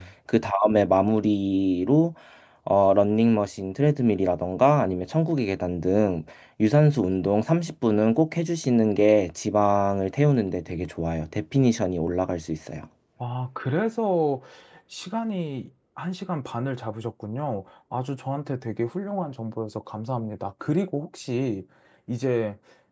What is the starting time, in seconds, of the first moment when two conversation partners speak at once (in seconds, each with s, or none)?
none